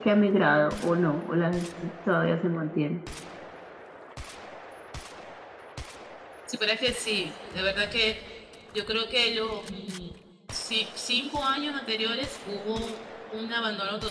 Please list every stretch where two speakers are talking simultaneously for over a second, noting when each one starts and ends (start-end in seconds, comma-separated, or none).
none